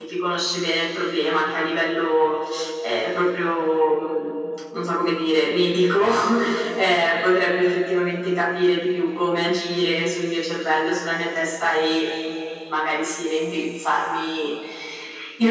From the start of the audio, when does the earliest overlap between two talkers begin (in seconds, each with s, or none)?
none